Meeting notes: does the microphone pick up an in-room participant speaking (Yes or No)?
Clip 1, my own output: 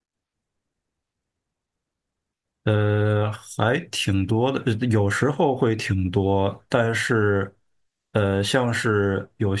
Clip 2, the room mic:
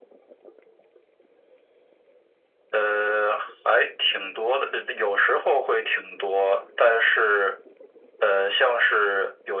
No